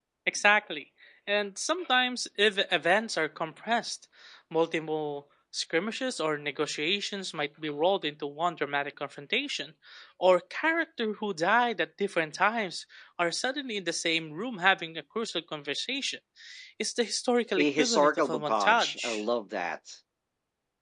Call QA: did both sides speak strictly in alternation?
No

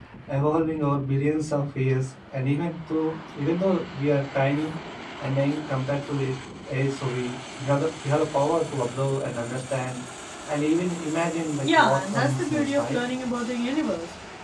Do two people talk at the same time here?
Yes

